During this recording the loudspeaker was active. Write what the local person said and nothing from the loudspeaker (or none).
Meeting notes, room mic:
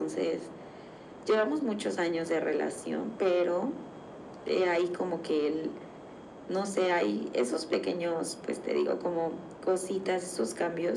none